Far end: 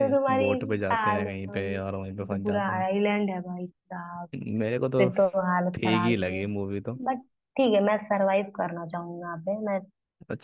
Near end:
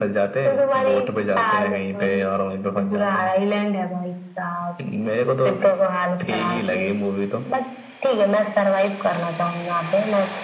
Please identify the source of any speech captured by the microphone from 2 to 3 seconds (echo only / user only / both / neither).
echo only